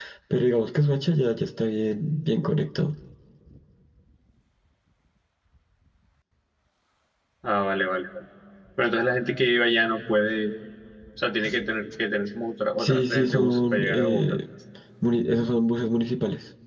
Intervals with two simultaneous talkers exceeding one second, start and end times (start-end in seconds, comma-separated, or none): 12.8-14.4